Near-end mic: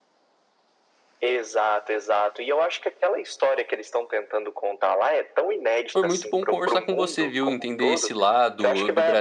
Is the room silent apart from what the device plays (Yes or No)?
No